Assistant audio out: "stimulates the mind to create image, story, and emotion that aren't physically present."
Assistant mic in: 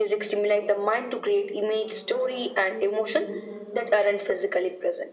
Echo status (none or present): present